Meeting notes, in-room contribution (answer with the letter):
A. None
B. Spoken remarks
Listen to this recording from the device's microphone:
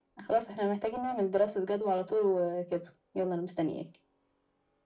A